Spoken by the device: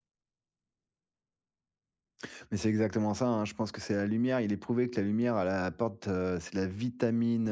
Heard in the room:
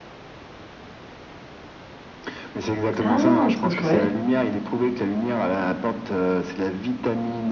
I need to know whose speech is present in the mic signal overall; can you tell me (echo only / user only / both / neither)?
both